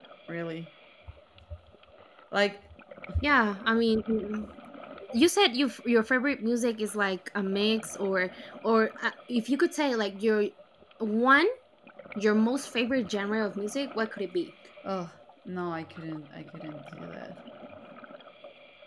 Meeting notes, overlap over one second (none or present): none